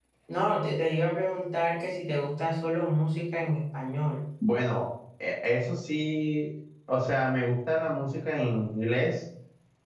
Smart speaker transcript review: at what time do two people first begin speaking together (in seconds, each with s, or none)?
none